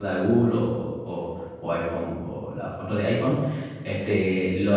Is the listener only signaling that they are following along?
Yes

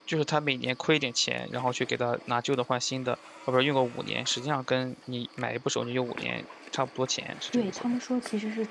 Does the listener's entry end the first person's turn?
Yes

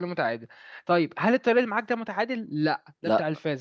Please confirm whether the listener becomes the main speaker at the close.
No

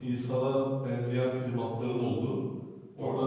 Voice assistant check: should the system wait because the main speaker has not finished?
Yes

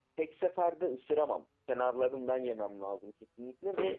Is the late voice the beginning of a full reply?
Yes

